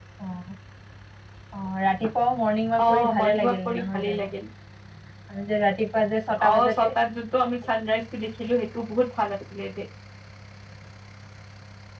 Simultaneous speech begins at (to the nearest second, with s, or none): 3 s